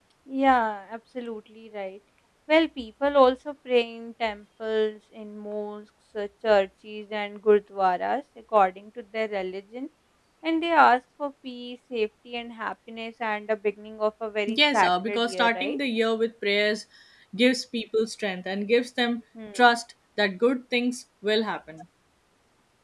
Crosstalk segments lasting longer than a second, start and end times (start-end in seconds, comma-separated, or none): 14.5-15.8